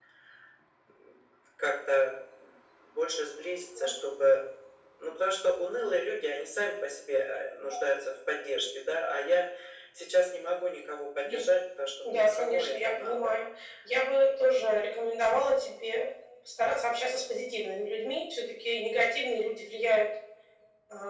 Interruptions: present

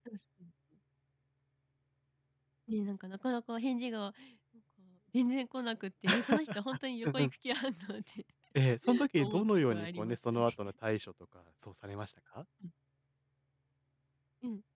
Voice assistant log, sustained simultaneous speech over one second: present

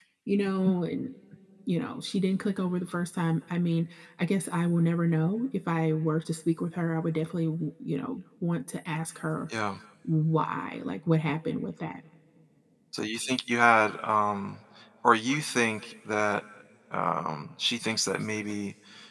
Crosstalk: none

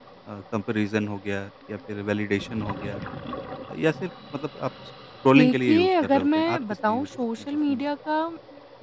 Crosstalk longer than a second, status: present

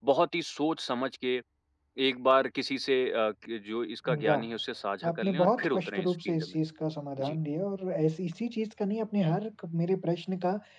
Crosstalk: present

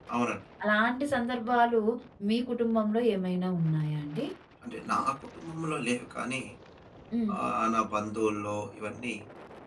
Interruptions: none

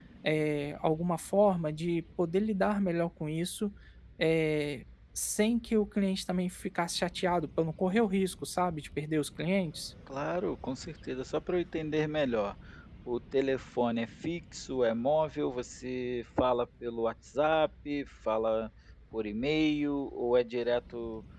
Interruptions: none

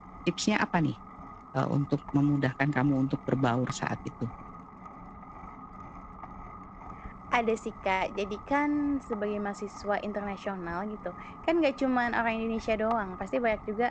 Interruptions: none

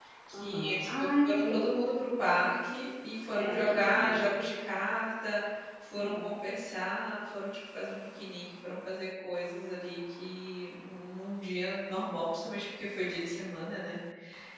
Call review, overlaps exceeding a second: present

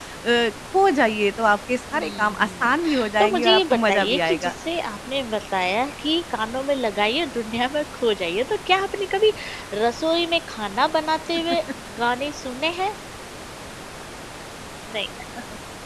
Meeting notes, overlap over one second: present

